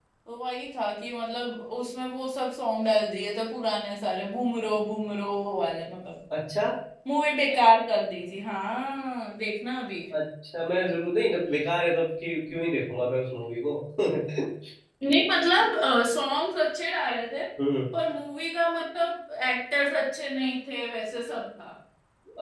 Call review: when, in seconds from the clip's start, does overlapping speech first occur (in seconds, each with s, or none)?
none